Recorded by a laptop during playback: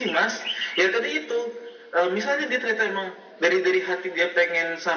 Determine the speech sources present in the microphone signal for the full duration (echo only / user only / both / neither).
echo only